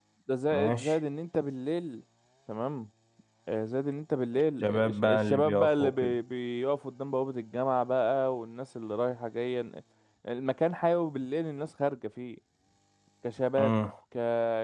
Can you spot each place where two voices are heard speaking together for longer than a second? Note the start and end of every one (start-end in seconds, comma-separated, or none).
4.6-6.1